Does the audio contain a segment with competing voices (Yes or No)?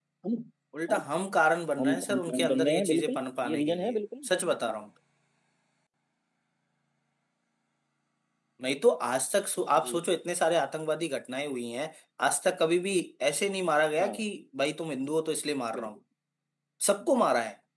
Yes